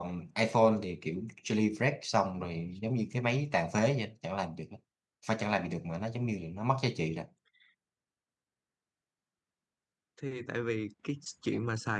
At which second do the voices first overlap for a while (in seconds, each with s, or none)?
none